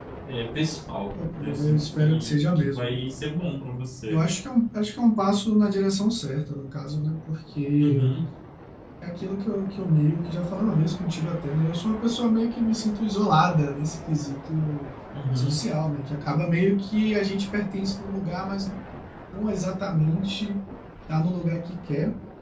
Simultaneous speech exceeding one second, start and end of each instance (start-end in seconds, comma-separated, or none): 1.4-3.0